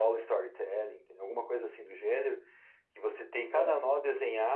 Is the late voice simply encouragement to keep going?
Yes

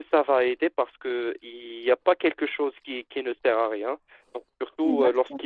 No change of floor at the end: Yes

